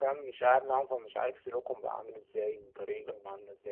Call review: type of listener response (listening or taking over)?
listening